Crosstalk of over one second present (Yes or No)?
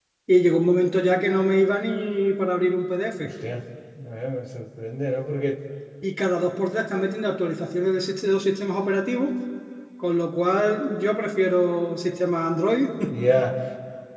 No